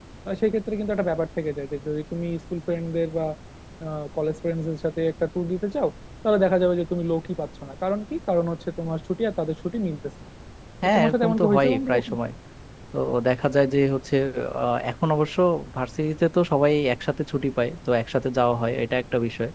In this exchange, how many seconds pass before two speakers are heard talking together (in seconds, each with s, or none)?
10.8 s